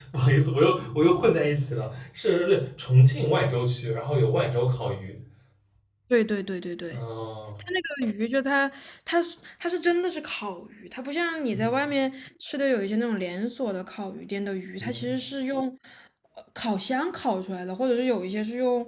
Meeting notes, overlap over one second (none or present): none